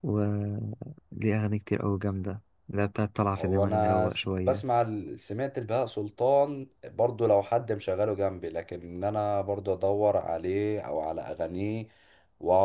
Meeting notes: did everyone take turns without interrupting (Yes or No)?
No